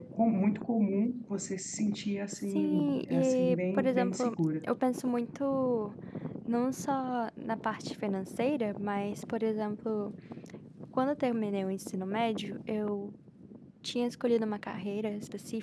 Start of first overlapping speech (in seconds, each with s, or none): 2.5 s